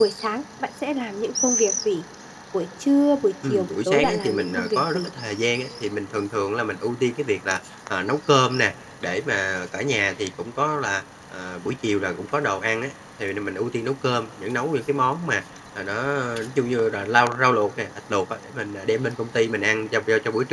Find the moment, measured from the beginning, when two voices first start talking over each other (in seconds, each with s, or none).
3.4 s